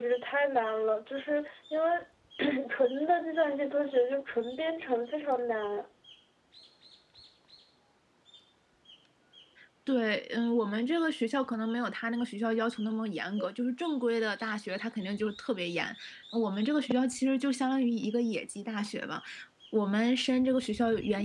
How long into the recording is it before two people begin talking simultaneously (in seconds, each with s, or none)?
none